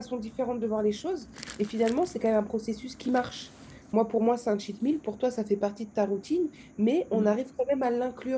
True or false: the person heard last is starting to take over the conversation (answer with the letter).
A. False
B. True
A